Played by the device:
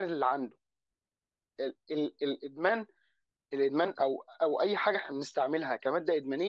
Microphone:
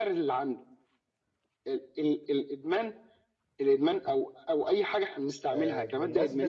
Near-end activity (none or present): present